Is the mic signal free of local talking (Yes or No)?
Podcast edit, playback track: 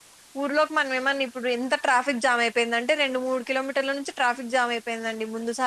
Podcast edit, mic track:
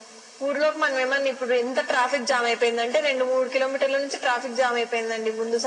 Yes